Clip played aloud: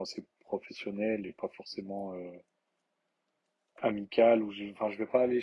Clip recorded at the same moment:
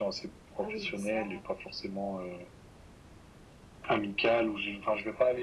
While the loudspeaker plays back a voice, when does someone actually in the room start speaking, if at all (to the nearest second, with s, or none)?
1 s